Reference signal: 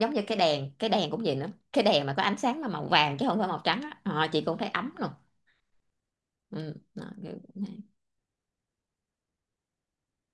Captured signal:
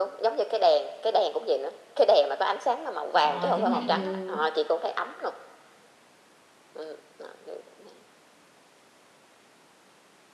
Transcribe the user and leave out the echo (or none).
ờ, chẳng hạn như